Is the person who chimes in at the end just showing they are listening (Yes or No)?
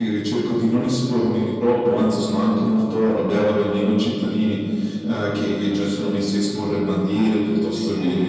Yes